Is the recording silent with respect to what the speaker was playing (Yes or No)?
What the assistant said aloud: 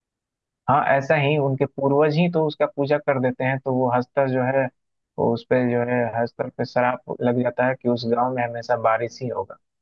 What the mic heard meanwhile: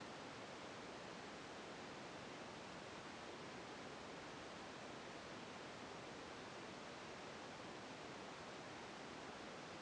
Yes